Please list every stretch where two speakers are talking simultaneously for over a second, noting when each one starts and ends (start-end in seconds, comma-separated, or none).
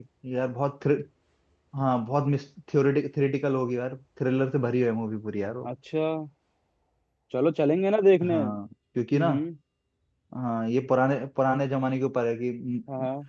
none